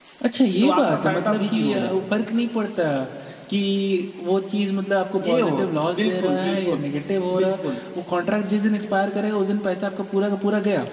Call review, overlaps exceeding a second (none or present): present